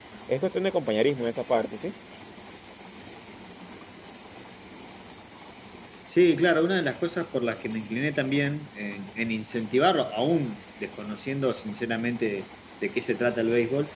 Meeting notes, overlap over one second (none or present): none